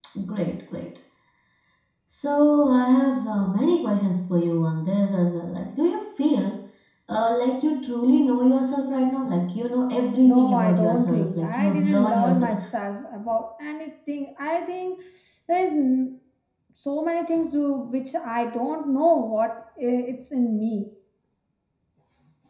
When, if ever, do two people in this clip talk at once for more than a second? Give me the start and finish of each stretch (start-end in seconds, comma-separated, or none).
10.2-12.6